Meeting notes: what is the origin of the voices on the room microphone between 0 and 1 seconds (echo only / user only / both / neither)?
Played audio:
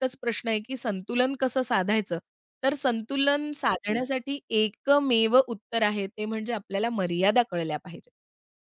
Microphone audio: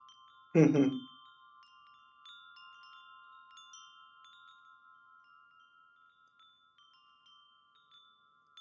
user only